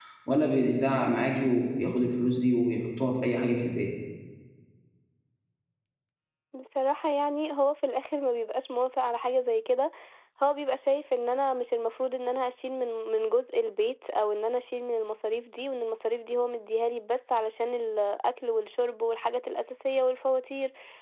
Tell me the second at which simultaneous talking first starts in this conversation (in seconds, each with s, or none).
none